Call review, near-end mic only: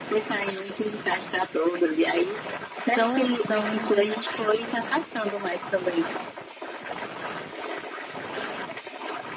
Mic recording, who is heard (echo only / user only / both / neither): both